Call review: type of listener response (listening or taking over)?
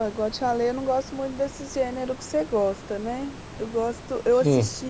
listening